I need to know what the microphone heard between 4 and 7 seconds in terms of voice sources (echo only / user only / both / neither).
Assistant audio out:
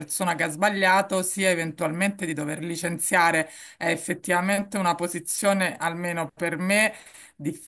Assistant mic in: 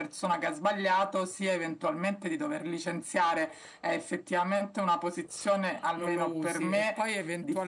both